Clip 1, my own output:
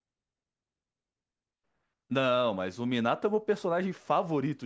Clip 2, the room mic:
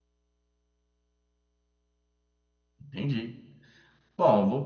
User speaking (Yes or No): Yes